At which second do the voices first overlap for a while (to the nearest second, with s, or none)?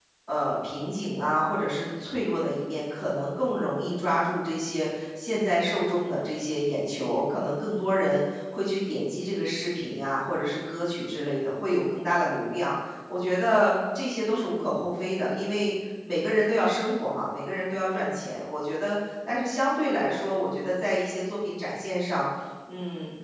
none